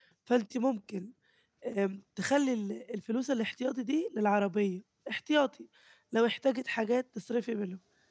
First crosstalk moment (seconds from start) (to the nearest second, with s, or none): none